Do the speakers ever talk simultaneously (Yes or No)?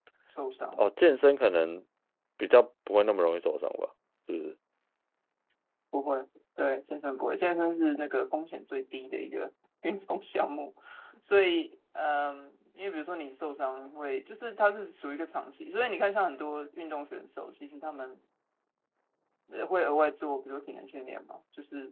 No